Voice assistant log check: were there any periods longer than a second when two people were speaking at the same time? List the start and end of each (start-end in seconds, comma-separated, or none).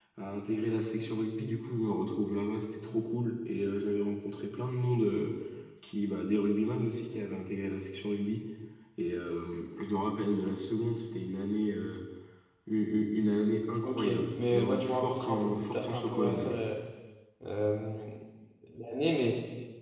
13.8-16.6